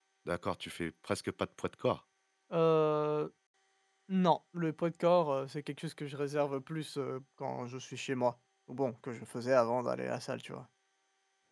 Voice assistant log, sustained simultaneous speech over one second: none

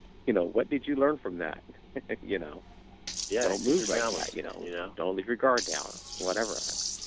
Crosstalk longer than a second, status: present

